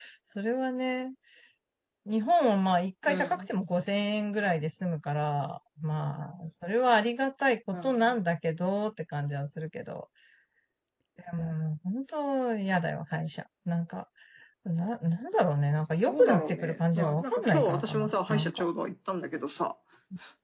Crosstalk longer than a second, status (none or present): present